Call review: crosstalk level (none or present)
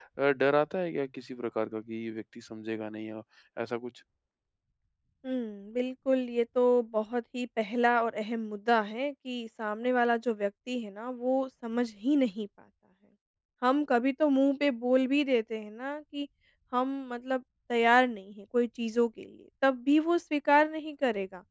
none